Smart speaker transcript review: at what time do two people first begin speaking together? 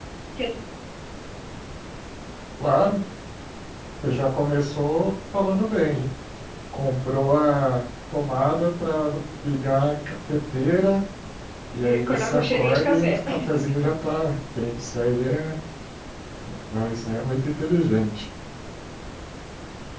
12.0 s

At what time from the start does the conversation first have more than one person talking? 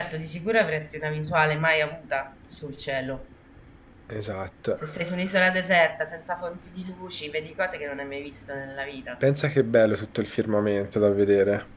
none

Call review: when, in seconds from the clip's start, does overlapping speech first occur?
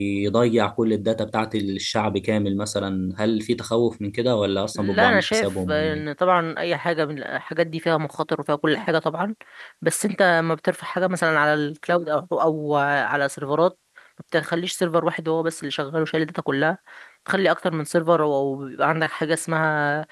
4.8 s

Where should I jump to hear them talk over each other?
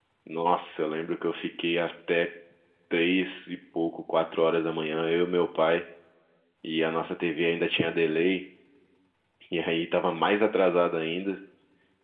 none

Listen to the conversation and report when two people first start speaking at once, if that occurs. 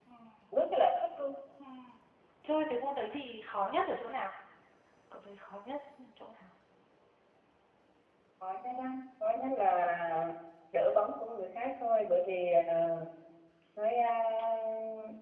none

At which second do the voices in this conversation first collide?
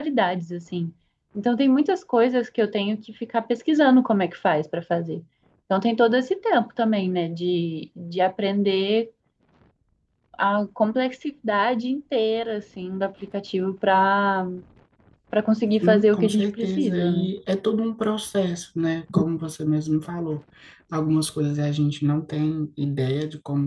15.8 s

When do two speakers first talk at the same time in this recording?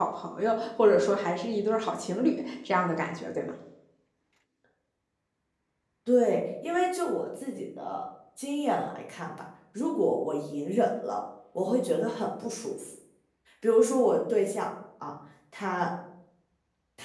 none

